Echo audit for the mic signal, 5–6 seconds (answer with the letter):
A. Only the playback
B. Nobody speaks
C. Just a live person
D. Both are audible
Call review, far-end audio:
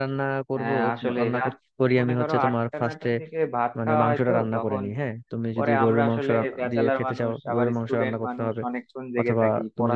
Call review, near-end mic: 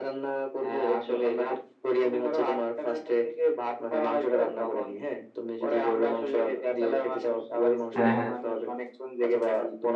A